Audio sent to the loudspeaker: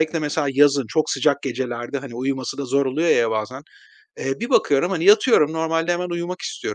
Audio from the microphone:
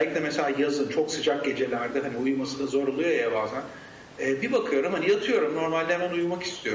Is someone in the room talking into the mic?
No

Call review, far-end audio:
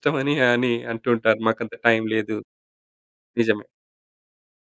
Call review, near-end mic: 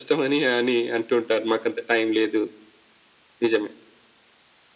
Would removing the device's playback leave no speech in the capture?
Yes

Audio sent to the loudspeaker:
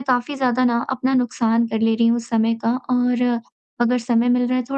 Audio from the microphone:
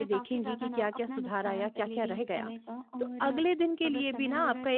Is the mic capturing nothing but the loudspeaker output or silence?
No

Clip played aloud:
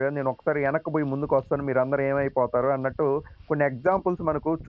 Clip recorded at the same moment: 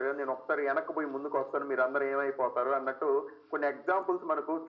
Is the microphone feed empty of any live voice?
Yes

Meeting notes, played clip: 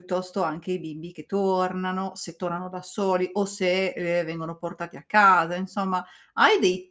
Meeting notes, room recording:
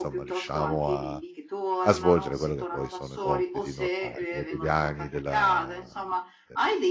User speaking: Yes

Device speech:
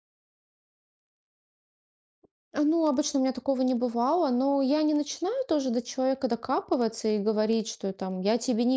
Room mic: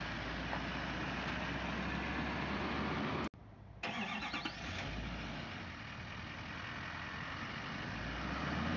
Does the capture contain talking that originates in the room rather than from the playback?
No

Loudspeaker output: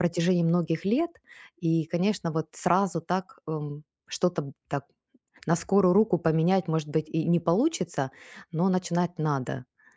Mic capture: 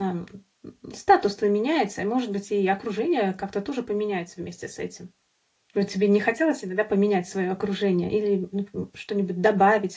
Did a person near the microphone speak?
Yes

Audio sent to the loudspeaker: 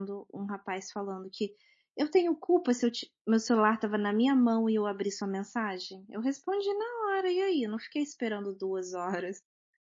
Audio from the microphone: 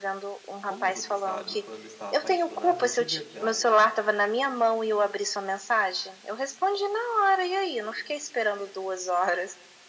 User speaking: Yes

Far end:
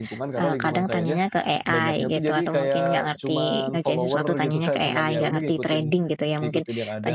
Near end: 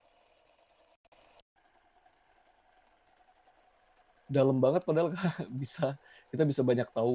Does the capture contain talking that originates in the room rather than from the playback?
Yes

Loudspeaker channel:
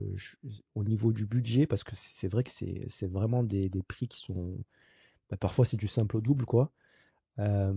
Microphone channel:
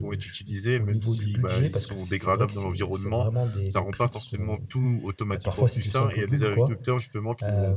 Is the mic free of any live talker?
No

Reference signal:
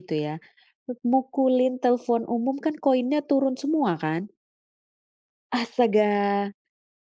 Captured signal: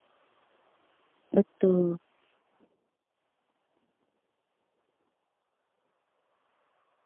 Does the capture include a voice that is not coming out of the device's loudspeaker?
Yes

